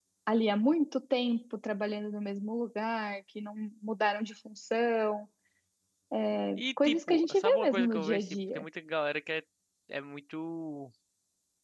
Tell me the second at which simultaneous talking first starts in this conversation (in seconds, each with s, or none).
6.8 s